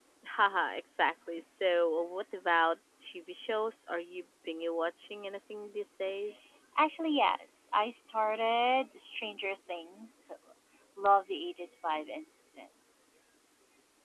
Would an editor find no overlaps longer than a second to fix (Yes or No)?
Yes